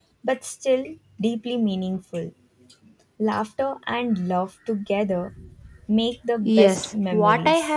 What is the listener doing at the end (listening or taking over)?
taking over